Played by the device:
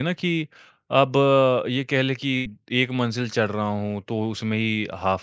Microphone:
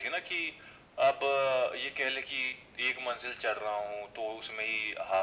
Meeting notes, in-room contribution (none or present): none